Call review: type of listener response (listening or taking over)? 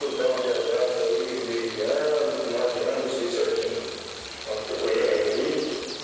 listening